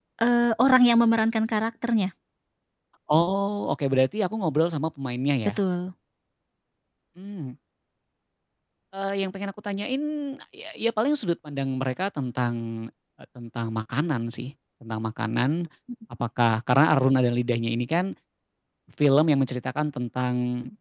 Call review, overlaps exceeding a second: none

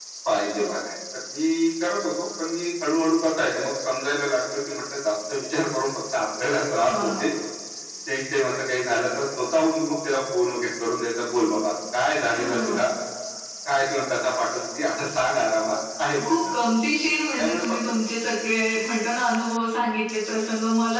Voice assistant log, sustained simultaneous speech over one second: none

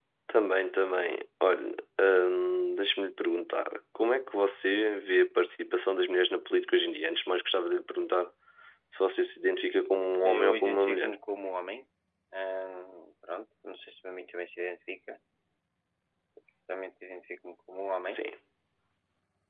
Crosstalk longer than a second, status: present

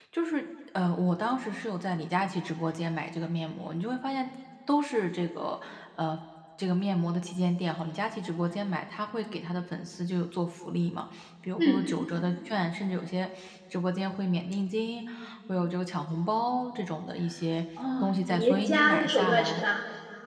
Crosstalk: present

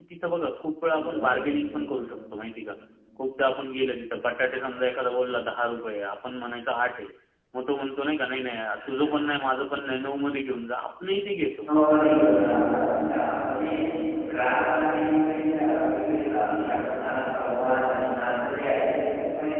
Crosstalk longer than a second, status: none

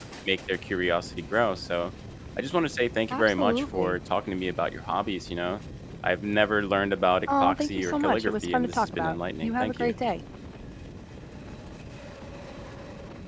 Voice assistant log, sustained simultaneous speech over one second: present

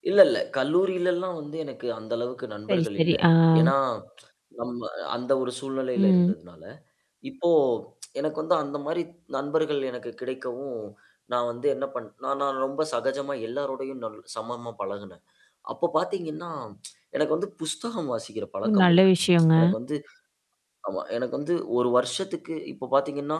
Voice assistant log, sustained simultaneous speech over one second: none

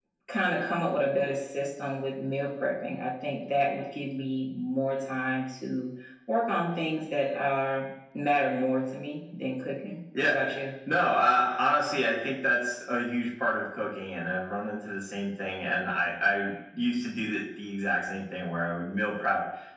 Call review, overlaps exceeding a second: none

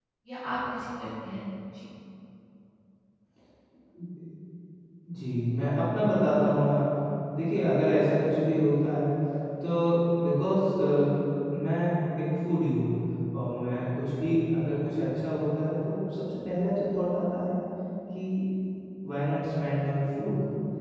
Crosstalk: none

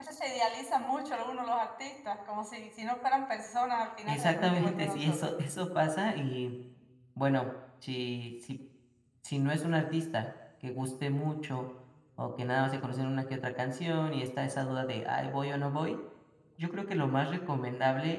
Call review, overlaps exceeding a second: present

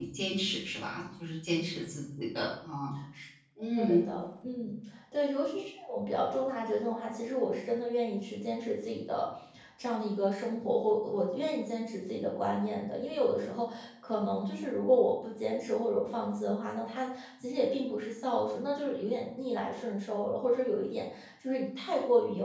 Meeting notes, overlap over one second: none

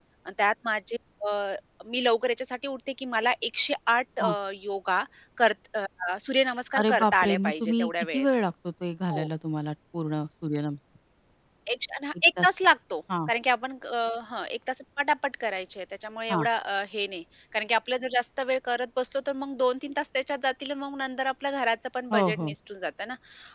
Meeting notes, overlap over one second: present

